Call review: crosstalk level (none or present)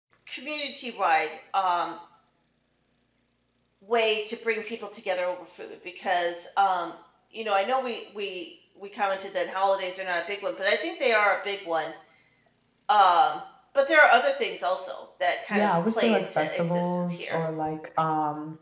present